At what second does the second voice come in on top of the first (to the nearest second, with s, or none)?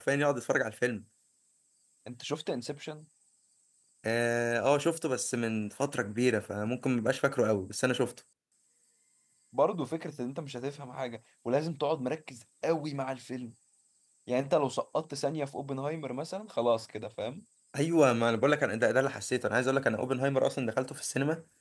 none